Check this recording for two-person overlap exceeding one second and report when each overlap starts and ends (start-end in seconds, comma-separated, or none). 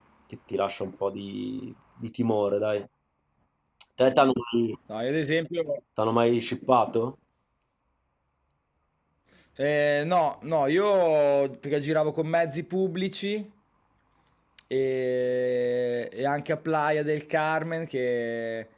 none